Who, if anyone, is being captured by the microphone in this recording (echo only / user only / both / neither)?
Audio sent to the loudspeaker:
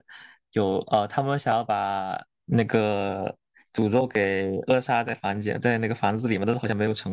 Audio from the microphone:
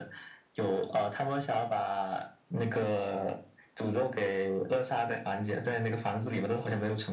echo only